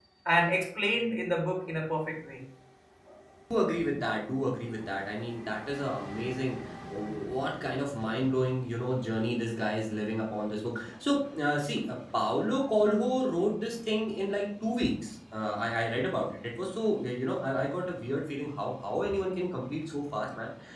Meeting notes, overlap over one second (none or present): none